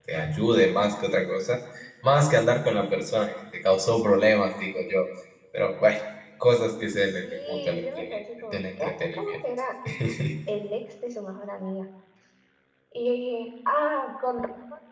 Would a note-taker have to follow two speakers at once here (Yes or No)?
Yes